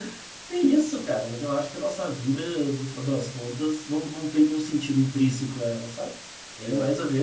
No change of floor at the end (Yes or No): Yes